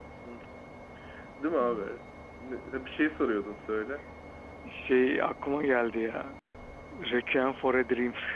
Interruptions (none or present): none